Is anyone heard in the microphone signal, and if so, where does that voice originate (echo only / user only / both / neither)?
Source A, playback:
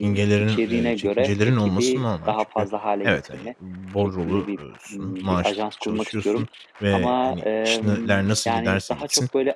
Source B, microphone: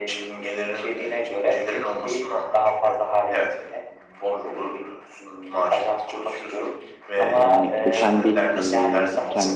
both